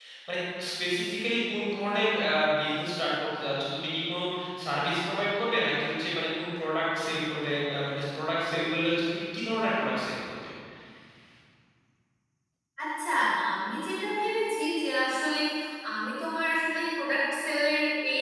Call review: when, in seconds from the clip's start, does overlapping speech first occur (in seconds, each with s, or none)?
none